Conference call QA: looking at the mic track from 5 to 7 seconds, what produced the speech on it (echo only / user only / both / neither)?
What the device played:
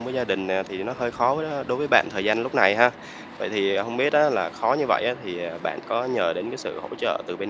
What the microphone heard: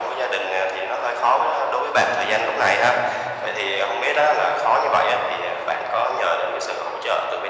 echo only